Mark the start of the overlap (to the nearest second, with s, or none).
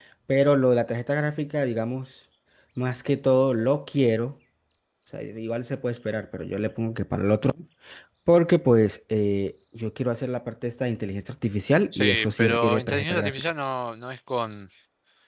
12 s